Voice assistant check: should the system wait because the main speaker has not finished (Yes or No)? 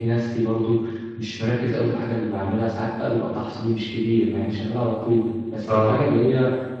Yes